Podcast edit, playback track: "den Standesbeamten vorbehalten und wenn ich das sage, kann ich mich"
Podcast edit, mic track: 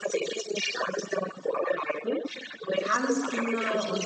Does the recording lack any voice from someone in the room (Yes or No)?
No